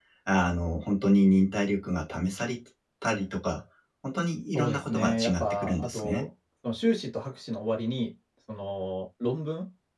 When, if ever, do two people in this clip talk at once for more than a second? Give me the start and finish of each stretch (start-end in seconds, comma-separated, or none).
4.5-6.3